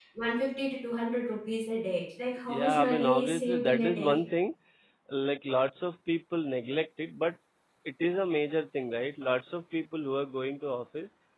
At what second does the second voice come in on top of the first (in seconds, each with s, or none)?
2.5 s